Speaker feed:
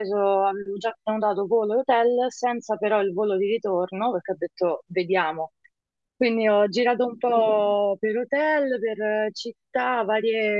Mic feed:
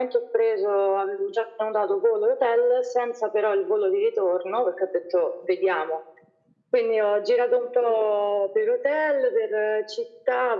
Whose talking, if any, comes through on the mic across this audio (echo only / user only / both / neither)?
echo only